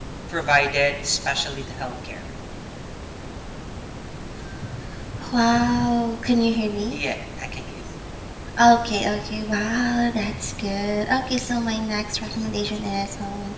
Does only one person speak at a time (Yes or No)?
Yes